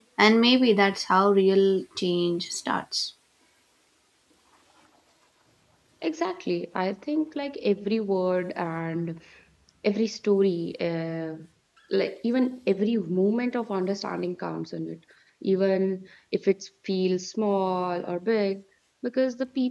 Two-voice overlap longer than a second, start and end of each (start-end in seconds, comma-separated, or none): none